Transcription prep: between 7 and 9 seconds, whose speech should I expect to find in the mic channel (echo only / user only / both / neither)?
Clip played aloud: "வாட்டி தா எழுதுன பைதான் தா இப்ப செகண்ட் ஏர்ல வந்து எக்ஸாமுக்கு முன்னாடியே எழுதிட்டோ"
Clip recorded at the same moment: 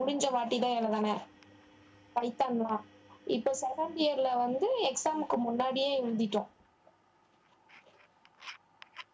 neither